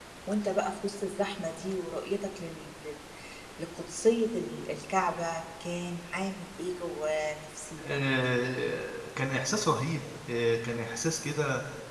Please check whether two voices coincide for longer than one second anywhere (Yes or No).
No